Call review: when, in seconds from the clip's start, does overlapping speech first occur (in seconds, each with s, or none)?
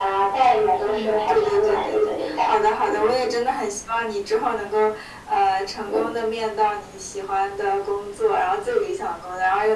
0.8 s